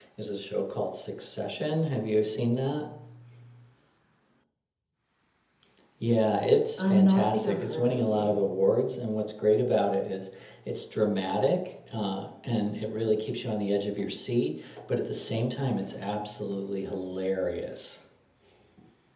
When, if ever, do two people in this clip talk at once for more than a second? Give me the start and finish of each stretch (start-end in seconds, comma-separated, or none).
6.8-8.3